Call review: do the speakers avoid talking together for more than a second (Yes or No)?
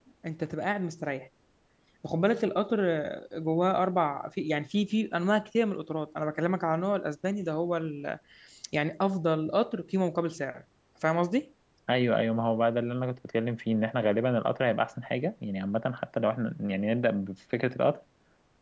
Yes